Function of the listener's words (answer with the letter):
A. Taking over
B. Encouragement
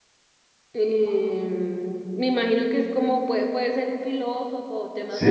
A